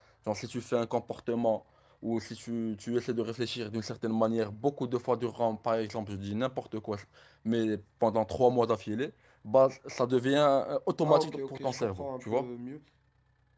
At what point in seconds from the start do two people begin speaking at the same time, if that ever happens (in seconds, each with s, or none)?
11.0 s